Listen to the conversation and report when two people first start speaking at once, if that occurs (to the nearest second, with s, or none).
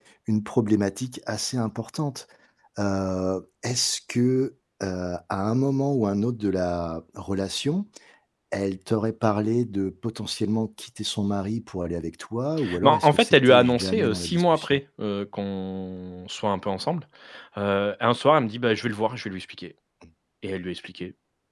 13 s